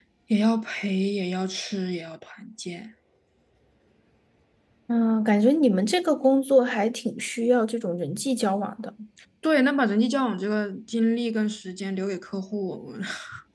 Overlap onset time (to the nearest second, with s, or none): none